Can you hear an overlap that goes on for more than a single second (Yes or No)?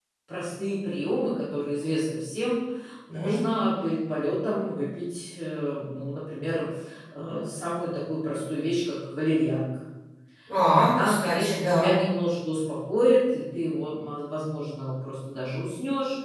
Yes